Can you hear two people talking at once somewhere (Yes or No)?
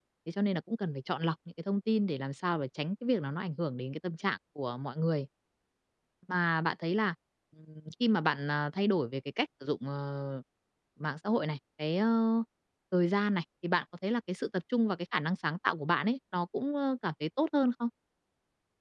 No